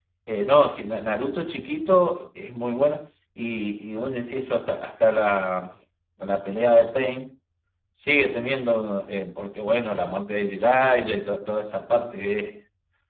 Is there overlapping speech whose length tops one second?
No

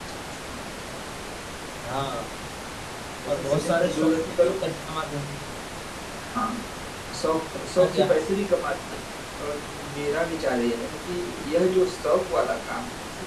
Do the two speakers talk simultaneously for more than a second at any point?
Yes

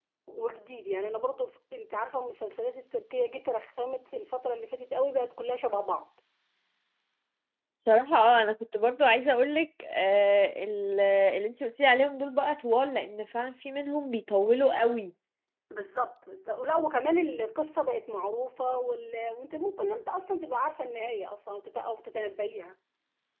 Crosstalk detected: No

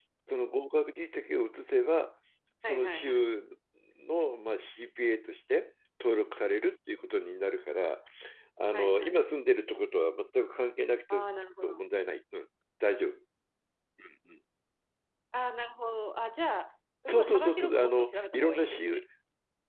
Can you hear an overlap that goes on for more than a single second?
Yes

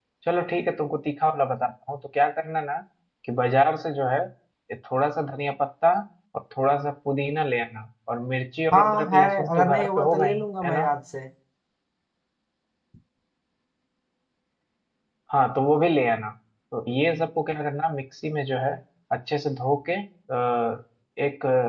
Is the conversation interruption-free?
No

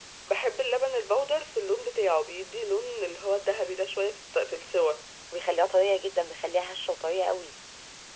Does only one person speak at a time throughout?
Yes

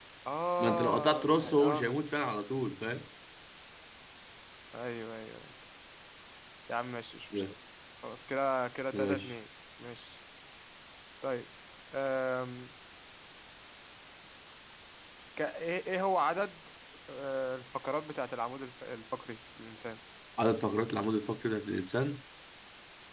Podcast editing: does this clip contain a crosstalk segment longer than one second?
Yes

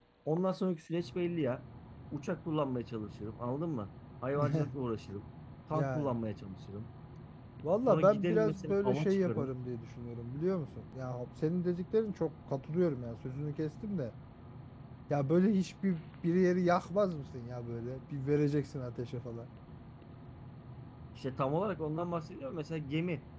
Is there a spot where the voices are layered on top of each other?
Yes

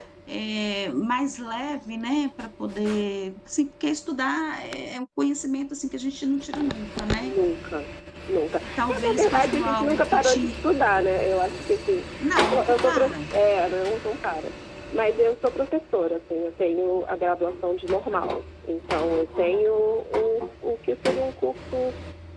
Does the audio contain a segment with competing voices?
Yes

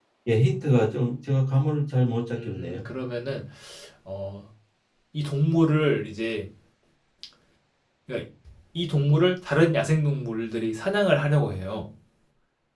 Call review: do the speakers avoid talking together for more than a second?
Yes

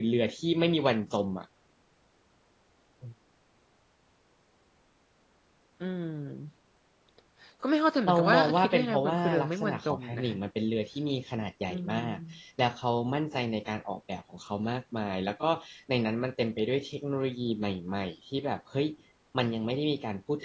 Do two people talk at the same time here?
Yes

